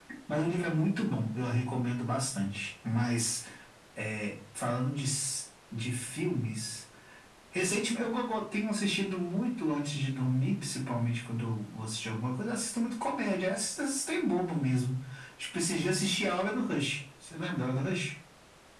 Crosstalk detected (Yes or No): No